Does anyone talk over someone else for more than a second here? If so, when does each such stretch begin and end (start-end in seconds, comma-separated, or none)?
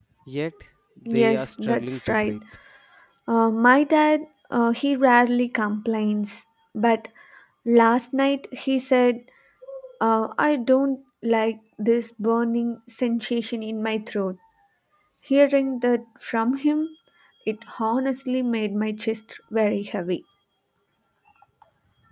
1.1-2.3